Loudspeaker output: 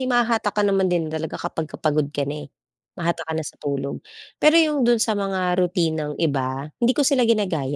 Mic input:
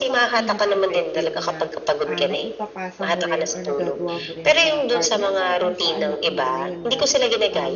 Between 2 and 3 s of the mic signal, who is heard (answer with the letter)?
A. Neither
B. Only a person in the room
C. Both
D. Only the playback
C